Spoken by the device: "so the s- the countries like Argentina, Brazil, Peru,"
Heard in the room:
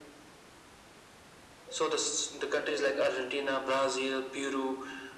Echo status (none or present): present